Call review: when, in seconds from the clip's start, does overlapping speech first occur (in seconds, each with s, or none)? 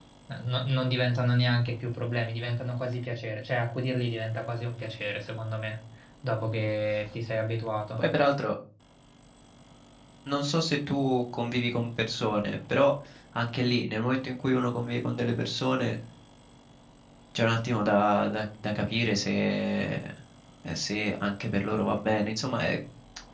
none